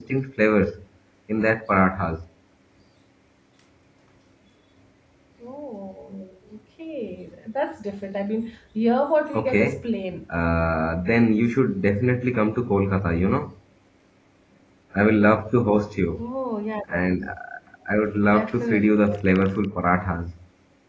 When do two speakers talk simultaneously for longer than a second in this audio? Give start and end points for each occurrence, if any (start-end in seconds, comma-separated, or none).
18.3-19.5